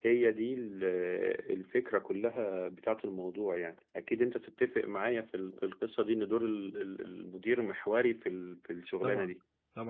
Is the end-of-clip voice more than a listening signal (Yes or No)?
Yes